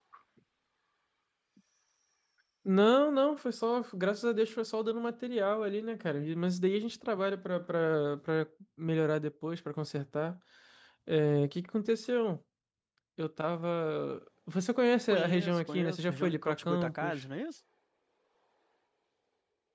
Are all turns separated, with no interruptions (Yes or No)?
No